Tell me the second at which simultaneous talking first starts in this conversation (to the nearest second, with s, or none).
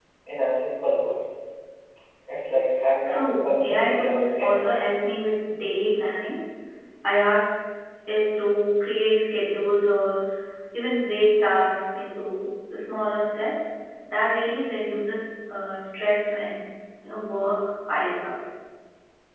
3 s